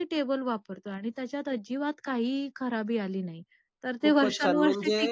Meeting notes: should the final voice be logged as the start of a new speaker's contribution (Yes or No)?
Yes